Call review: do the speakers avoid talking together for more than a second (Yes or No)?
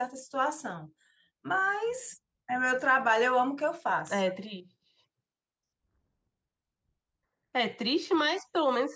Yes